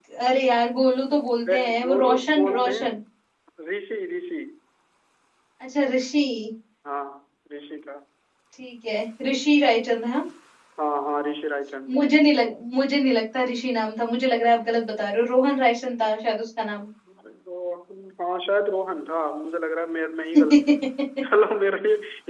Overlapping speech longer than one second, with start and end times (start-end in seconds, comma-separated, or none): 1.5-3.0